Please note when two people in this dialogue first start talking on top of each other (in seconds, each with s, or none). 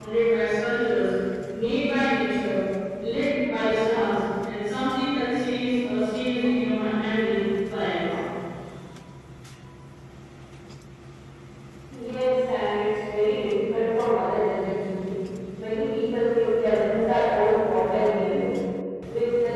none